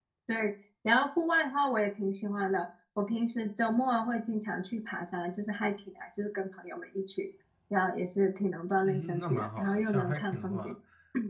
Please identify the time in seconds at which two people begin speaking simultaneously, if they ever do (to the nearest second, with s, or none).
9 s